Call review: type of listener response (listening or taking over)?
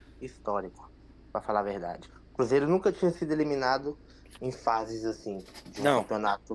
taking over